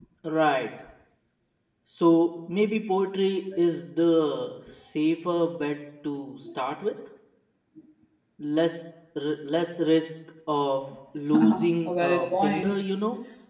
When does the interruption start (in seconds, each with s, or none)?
11.3 s